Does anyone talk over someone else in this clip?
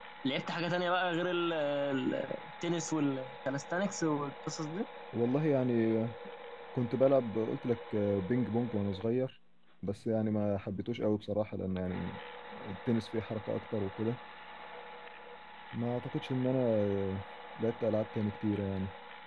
No

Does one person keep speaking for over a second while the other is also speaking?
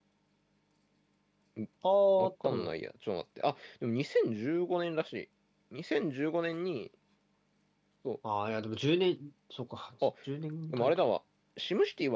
No

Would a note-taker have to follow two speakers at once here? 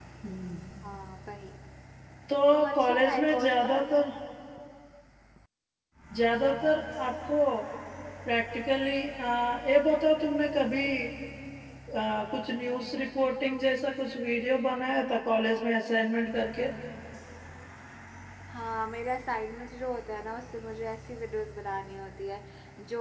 Yes, from 2.8 s

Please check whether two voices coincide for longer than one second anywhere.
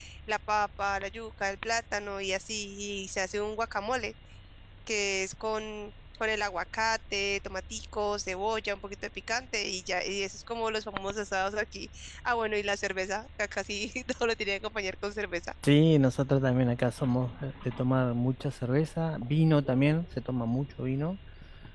No

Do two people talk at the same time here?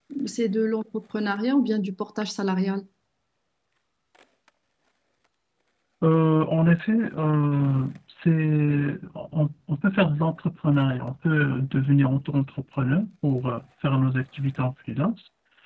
No

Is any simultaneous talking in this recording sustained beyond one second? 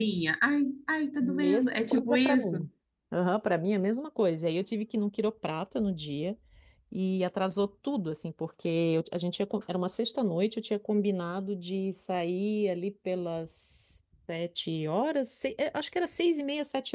Yes, from 1.2 s

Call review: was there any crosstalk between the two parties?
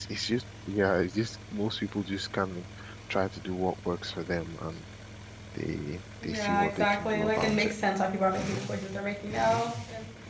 Yes, from 6.2 s

